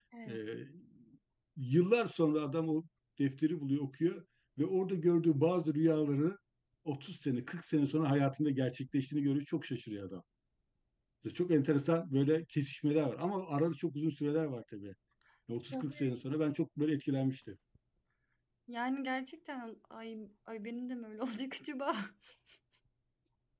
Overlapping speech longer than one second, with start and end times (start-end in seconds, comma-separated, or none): none